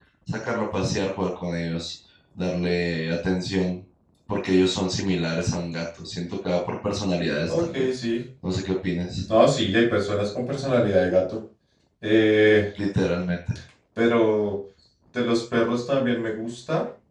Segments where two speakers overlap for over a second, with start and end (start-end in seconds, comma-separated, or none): none